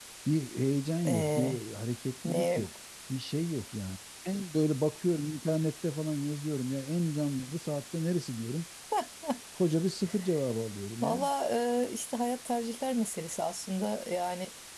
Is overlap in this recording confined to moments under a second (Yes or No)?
Yes